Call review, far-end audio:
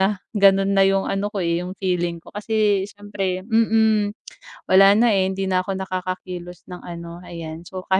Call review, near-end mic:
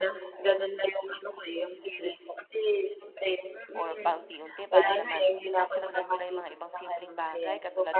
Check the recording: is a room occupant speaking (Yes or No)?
Yes